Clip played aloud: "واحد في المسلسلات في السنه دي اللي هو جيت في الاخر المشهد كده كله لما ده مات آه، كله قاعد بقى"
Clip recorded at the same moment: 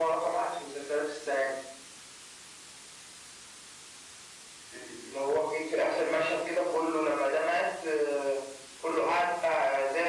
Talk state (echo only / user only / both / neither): echo only